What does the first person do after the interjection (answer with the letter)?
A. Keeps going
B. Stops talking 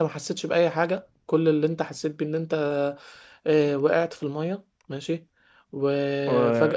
A